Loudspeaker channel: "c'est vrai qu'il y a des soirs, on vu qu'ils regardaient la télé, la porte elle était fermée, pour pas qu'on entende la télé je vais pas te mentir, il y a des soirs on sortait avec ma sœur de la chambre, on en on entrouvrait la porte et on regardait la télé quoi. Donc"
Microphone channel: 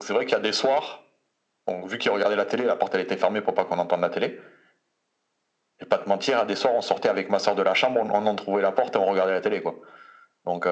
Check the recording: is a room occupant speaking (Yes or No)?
No